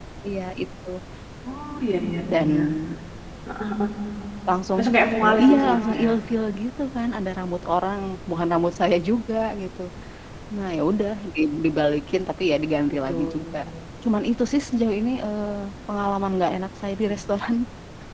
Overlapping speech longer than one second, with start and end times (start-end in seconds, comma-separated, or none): 4.8-6.1